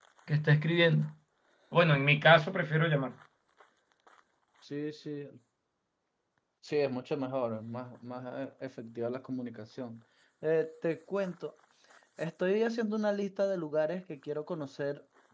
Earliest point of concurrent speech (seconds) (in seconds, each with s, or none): none